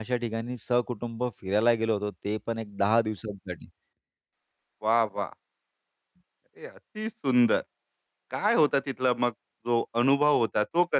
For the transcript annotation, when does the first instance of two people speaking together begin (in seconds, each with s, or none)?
none